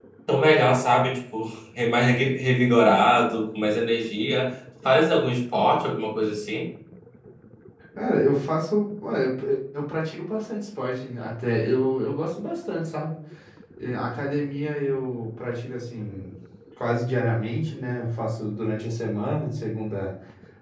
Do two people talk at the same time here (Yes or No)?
No